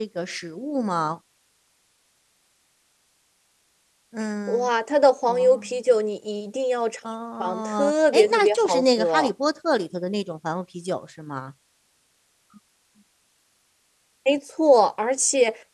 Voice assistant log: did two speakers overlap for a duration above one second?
Yes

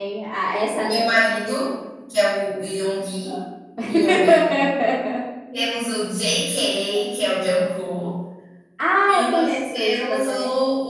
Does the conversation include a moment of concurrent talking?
Yes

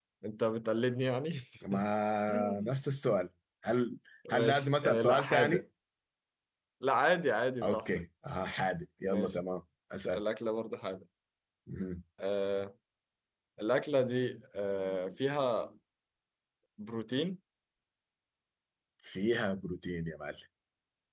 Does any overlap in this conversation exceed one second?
Yes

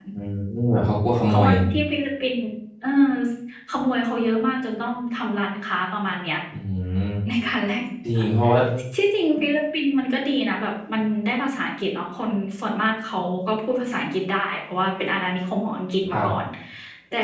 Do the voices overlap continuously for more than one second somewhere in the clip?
No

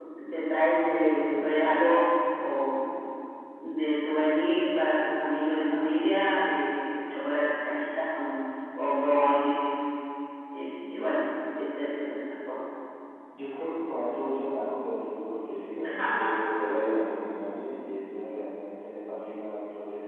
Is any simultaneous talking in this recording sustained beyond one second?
No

